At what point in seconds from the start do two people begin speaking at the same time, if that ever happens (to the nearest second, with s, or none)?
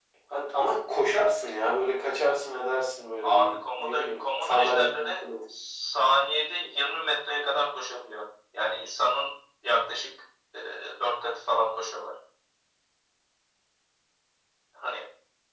3 s